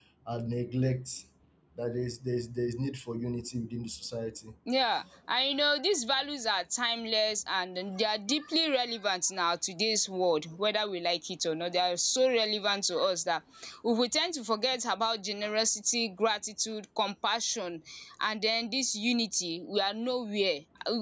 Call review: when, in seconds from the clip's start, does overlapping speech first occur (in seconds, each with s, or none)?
none